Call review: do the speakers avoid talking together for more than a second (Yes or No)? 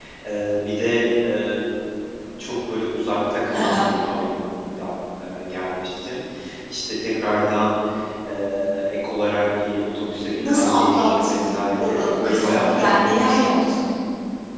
No